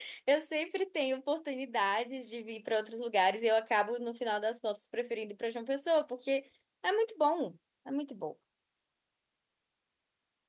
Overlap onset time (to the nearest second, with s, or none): none